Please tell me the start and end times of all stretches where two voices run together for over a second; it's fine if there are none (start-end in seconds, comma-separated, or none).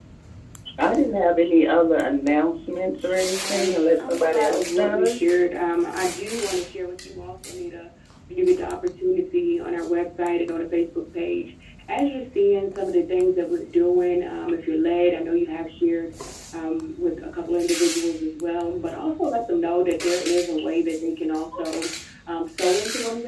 3.5-5.3